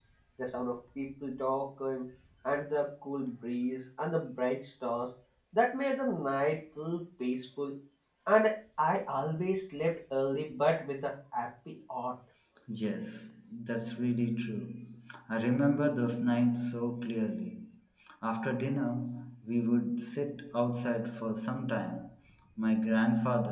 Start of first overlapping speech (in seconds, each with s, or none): none